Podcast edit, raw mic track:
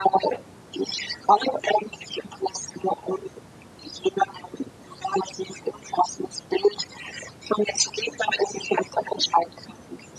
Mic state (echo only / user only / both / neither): echo only